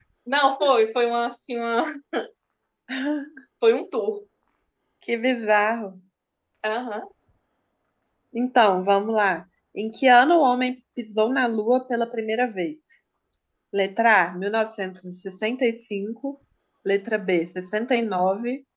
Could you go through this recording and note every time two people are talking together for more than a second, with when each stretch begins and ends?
none

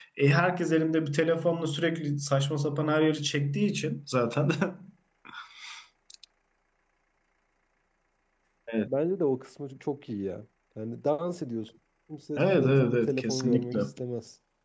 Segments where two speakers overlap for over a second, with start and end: 12.4-13.8

